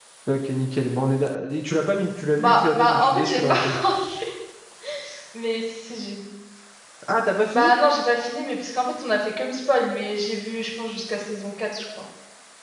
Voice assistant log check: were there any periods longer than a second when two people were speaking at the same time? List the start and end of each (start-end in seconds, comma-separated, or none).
2.4-3.7